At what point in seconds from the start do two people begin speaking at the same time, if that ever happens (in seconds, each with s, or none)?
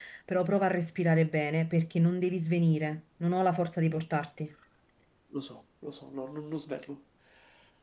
none